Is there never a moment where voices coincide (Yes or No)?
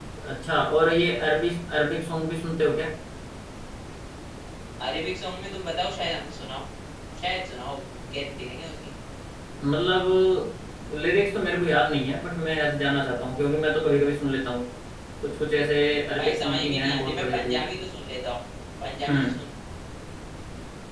No